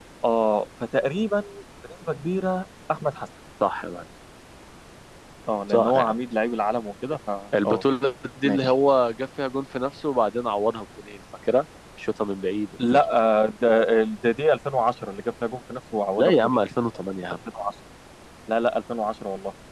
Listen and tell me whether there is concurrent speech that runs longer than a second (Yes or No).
No